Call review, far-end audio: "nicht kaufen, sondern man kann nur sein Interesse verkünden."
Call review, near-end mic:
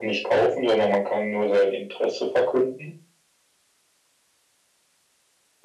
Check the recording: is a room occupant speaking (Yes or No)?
No